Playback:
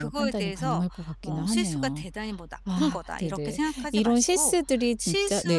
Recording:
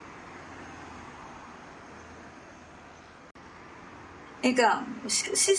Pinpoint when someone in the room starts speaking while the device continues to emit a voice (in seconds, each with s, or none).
4.4 s